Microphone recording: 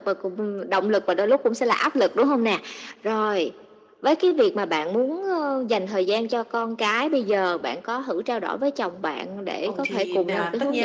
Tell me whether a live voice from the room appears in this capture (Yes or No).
Yes